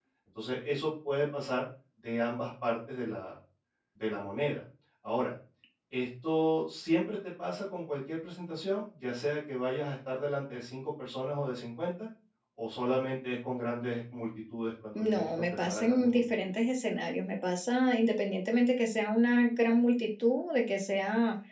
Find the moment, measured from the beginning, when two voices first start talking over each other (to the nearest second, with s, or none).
15 s